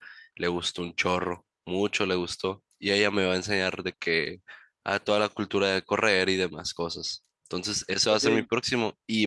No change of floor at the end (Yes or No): Yes